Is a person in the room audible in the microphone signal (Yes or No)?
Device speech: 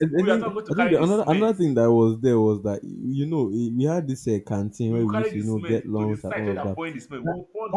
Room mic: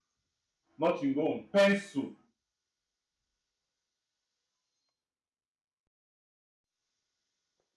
Yes